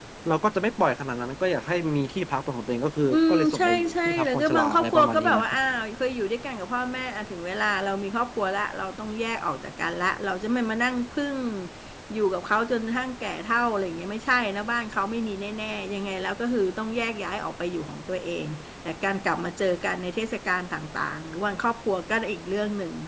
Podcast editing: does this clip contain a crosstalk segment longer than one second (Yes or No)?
Yes